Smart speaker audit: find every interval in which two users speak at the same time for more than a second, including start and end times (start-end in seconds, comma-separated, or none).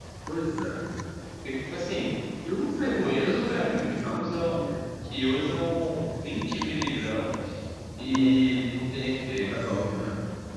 2.8-4.5